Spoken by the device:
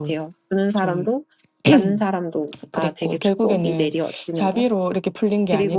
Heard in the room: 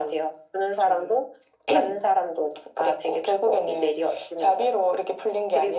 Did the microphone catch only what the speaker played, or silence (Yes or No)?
Yes